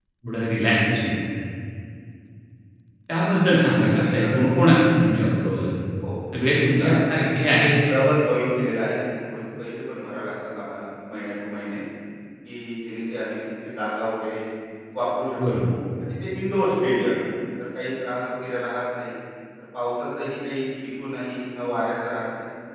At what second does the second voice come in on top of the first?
4 s

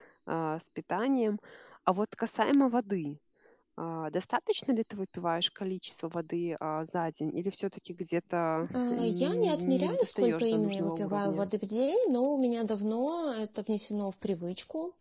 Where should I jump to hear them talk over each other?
9 s

